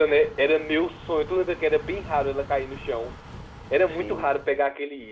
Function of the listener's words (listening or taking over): listening